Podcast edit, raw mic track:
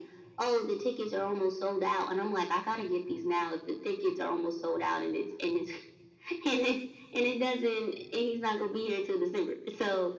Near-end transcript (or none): none